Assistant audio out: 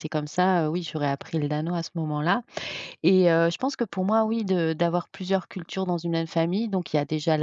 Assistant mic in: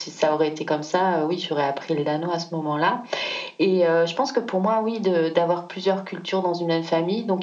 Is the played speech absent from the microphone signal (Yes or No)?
No